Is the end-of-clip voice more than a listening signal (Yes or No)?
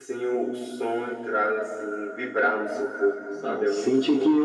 Yes